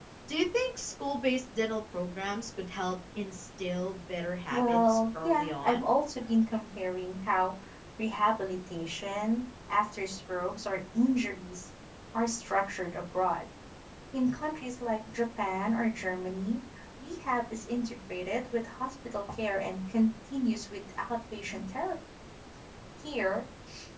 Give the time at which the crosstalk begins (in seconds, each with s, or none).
4.5 s